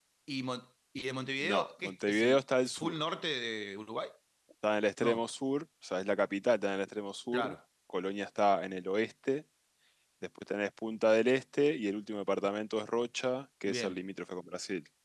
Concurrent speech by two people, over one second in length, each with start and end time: 1.4-3.0

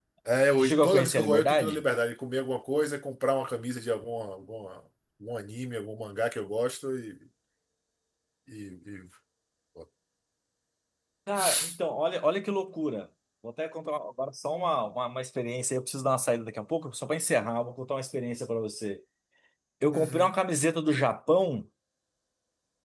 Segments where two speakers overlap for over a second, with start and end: 0.6-1.8

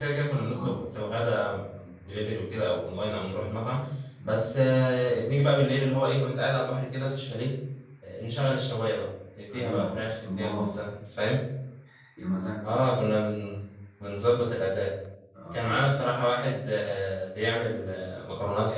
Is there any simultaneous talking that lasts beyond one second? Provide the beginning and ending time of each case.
9.5-10.8

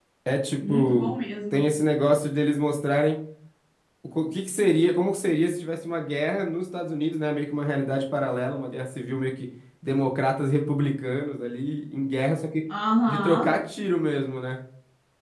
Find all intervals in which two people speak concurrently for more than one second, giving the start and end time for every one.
none

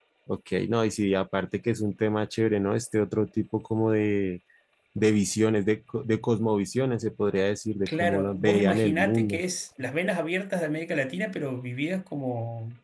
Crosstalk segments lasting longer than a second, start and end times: 7.9-9.4

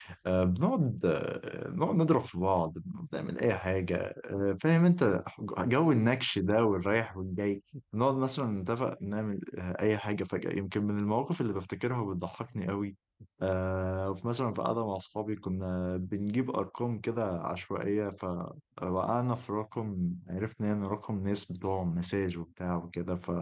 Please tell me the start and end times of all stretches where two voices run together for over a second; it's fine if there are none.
none

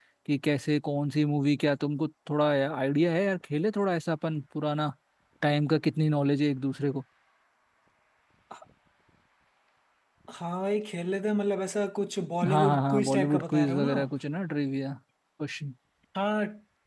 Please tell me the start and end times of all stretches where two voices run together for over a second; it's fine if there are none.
12.5-14.1

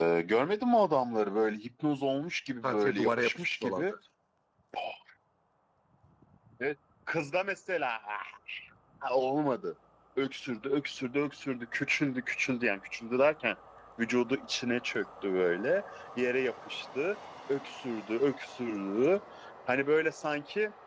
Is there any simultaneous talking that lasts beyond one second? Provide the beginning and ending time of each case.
2.6-3.9

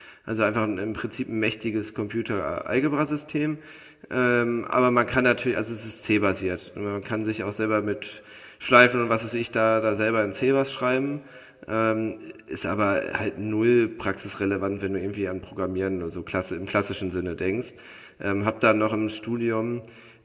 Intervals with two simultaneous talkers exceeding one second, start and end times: none

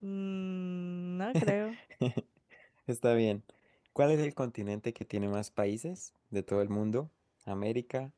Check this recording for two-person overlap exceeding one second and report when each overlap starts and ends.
none

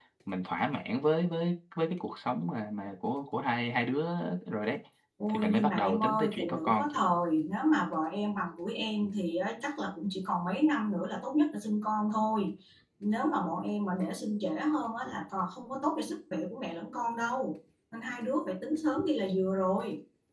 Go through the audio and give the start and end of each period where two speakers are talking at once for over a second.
5.3-7.0

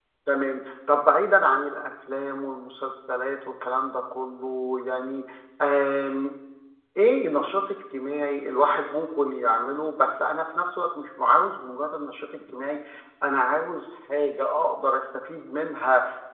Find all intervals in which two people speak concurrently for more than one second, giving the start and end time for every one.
none

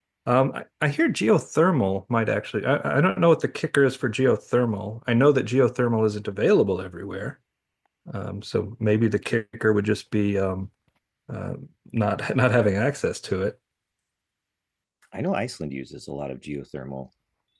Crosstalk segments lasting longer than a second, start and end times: none

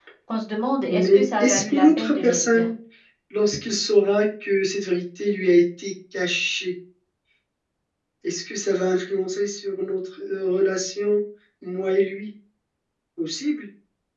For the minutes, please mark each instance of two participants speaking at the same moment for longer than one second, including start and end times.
0.9-2.7

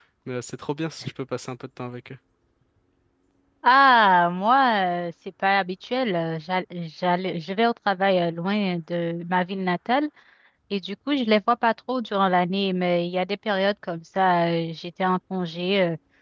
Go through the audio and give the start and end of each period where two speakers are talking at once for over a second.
none

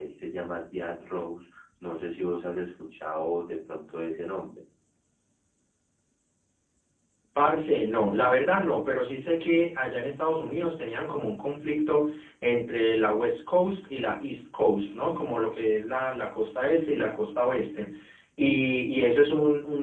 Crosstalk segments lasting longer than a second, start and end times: none

